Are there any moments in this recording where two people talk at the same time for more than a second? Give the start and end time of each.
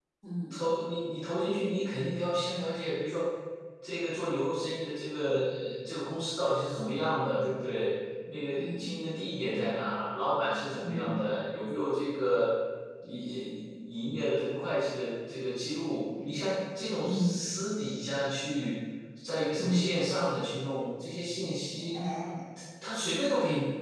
none

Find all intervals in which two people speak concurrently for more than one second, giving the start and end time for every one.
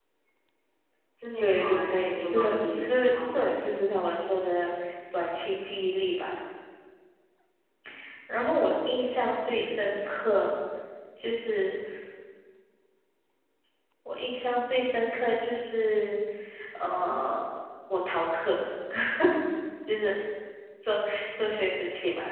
1.4-3.6

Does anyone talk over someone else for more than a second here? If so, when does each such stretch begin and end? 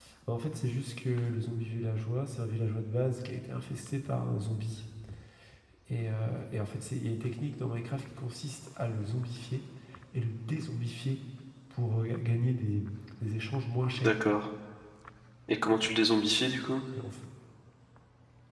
none

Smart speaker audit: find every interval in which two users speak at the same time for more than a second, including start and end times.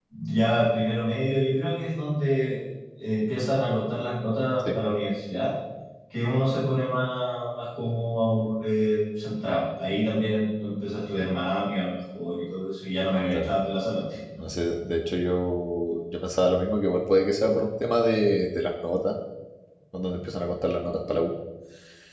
none

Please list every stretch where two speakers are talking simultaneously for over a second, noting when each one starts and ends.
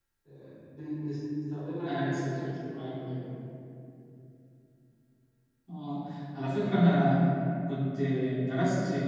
1.9-3.2

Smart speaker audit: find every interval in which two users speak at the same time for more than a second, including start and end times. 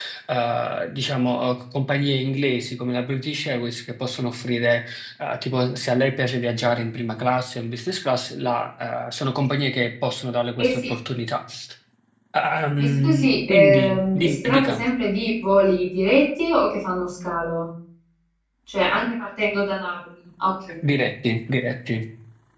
12.8-14.8

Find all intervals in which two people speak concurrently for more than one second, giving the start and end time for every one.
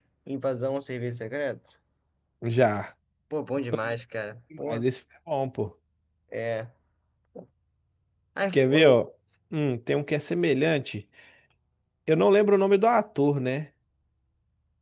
none

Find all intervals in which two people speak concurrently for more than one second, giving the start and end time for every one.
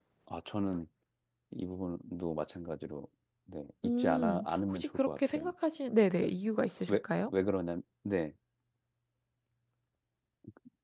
4.0-5.5

